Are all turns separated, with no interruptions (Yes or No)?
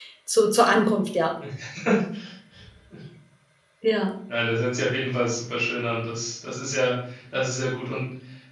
Yes